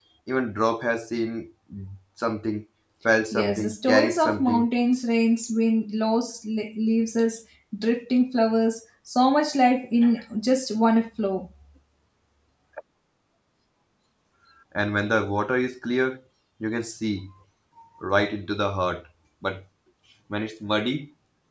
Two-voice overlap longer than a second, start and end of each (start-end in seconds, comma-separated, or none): 3.3-4.7